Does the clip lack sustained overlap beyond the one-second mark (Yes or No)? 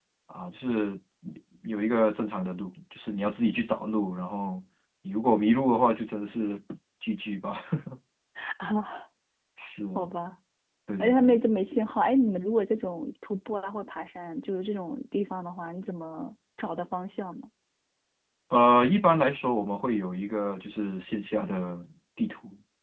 Yes